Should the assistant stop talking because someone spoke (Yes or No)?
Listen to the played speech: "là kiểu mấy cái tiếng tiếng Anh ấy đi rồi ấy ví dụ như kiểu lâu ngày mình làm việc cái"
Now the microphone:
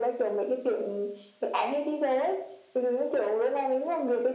No